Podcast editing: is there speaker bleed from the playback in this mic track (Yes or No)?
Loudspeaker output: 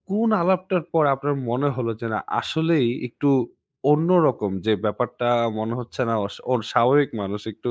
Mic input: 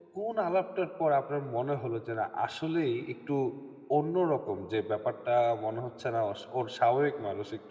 Yes